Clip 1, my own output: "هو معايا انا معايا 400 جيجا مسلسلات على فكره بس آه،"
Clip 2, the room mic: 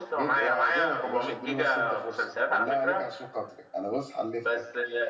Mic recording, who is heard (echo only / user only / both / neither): both